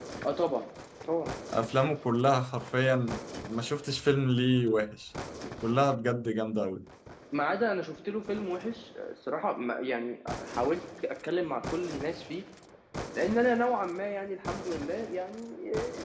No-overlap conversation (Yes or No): Yes